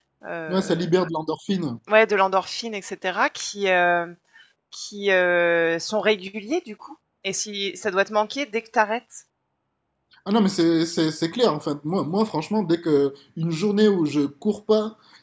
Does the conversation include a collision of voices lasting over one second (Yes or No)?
No